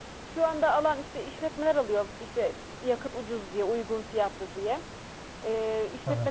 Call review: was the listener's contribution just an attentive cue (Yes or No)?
Yes